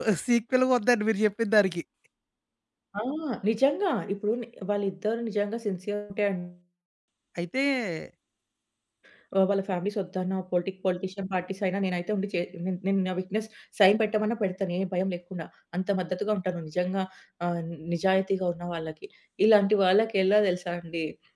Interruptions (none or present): none